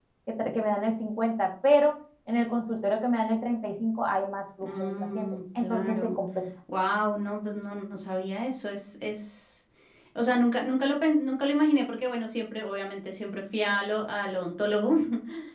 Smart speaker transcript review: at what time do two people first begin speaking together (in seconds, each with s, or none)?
4.6 s